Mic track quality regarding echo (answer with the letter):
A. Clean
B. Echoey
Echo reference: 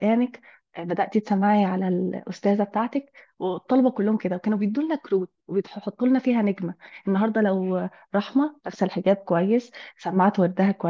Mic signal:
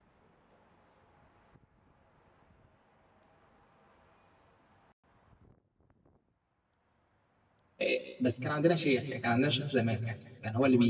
A